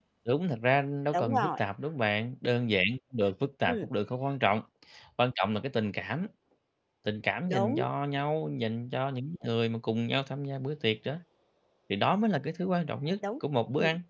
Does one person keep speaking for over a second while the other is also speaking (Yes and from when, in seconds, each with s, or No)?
No